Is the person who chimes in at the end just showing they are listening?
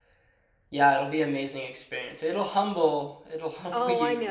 No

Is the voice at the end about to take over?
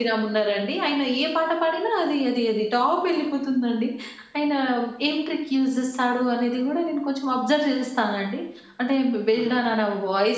No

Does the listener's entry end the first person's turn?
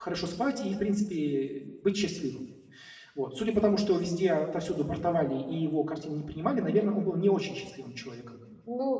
Yes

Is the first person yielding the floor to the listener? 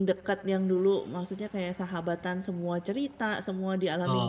Yes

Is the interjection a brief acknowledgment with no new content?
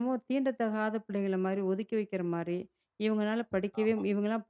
Yes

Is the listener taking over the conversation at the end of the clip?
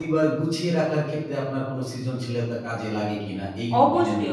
Yes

